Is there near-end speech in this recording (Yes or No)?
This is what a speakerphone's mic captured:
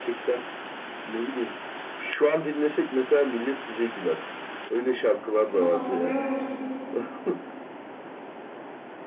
Yes